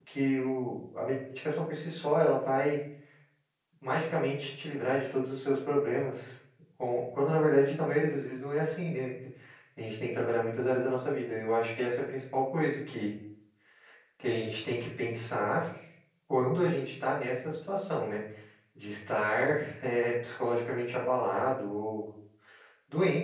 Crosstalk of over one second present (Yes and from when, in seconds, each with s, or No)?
No